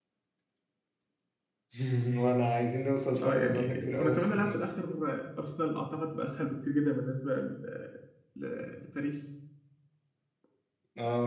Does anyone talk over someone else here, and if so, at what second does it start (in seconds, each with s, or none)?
3.2 s